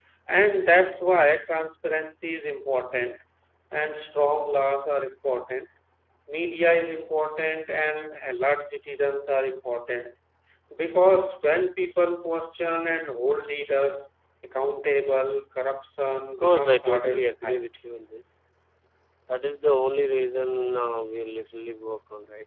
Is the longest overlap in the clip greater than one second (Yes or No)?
Yes